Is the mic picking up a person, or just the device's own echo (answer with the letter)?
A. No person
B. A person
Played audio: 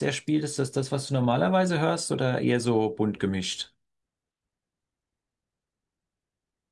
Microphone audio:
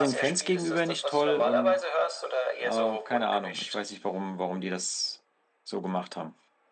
B